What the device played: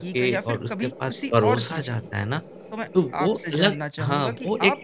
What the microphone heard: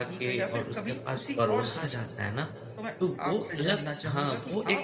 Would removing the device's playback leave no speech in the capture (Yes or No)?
Yes